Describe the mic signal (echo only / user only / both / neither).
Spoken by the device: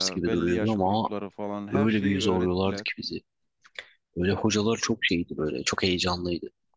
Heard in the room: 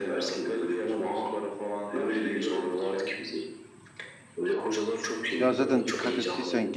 both